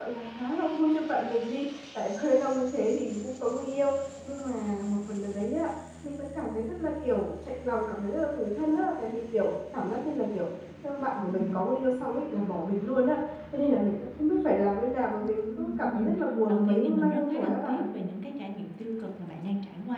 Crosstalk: present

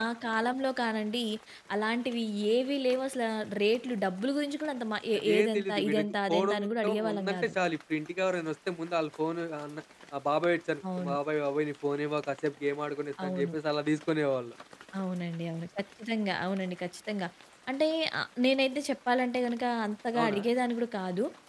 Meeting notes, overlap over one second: present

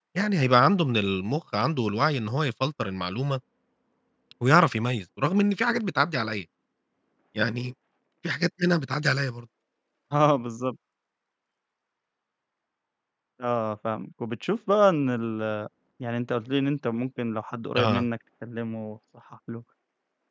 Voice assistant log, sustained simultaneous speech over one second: none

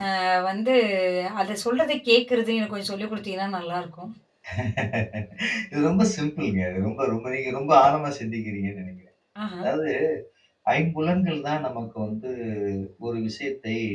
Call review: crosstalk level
none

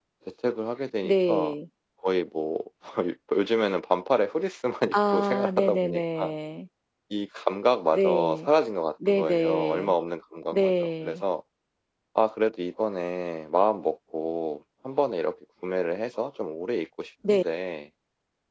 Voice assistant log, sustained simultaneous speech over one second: present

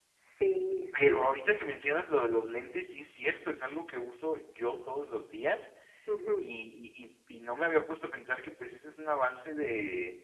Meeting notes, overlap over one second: none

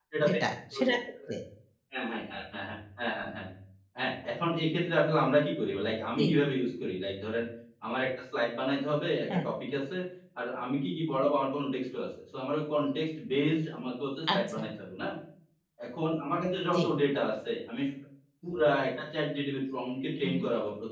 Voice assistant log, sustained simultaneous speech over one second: none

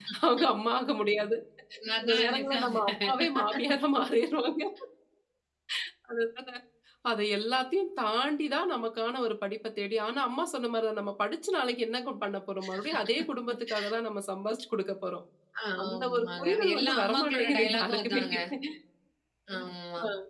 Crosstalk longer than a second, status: present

